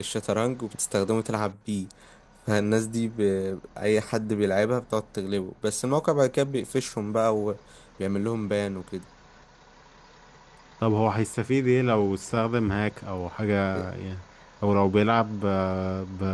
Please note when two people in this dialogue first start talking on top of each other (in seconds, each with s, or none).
none